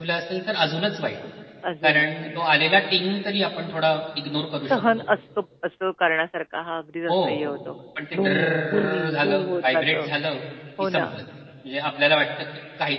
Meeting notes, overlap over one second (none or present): present